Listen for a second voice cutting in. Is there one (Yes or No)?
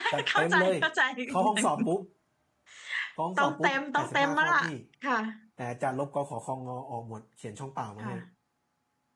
Yes